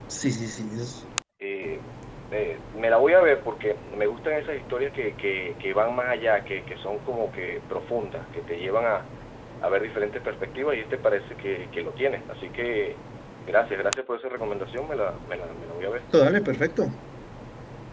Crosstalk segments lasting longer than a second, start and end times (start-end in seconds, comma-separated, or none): none